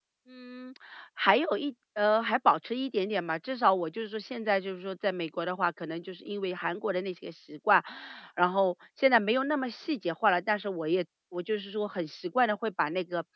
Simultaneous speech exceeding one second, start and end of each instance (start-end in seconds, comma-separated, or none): none